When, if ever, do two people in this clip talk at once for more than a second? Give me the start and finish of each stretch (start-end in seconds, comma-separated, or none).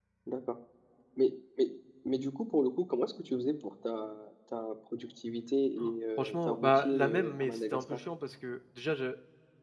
6.2-7.8